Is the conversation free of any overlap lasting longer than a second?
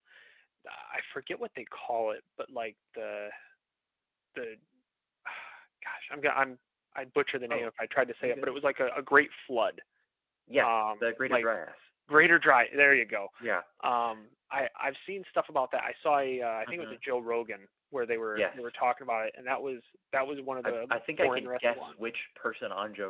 No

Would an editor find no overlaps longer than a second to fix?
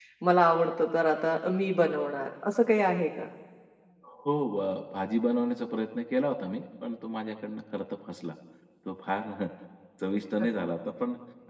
Yes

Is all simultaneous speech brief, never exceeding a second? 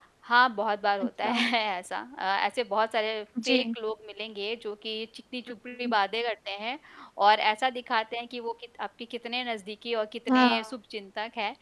Yes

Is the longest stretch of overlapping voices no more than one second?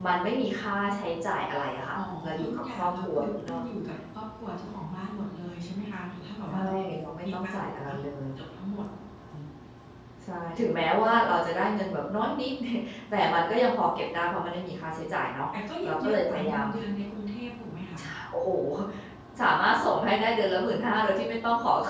No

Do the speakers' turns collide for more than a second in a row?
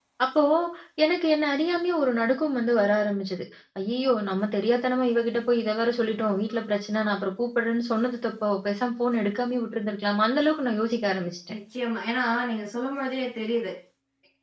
No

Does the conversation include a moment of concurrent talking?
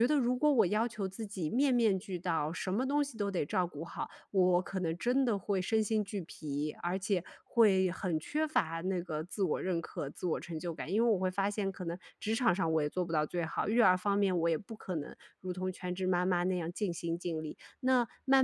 No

